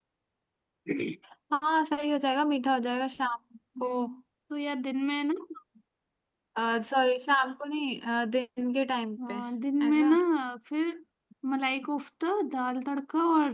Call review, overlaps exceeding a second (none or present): none